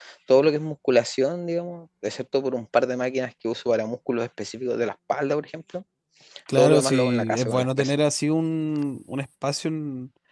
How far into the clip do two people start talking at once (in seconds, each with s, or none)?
6.5 s